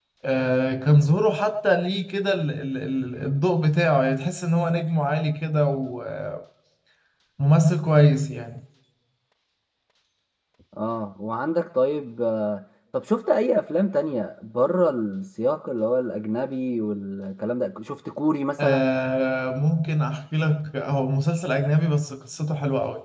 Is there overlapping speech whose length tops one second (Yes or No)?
No